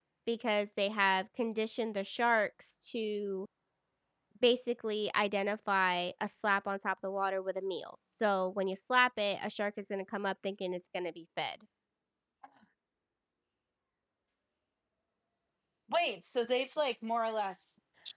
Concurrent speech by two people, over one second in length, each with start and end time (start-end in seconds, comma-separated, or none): none